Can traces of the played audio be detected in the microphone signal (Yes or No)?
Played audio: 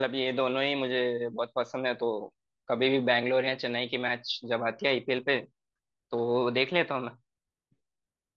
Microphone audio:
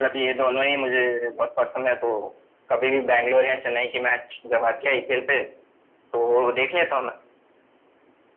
Yes